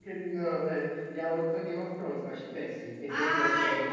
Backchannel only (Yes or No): No